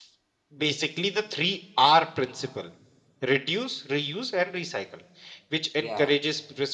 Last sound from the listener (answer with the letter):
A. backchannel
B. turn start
A